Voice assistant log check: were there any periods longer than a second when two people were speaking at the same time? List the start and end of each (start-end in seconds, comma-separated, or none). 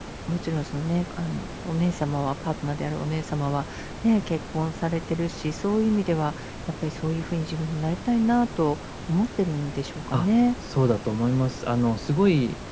none